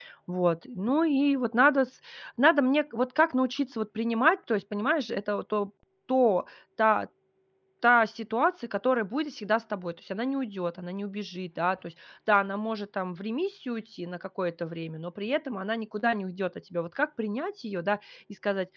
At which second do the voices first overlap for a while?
none

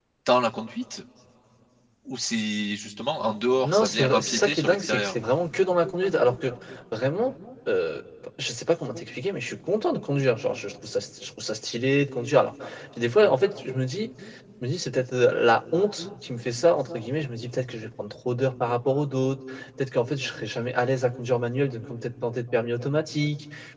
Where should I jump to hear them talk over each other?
3.6 s

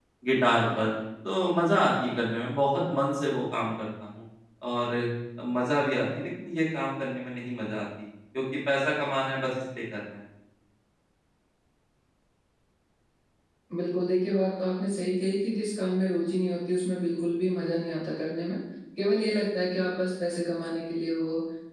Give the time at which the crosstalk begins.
none

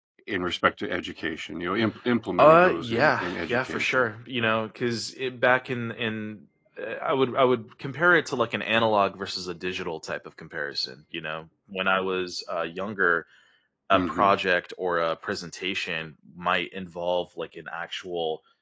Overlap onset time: 2.4 s

